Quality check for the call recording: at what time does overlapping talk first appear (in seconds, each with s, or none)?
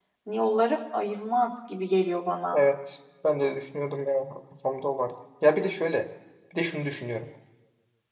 none